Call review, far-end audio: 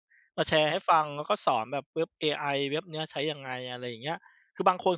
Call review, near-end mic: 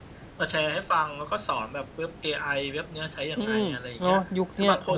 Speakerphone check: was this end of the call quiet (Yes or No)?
No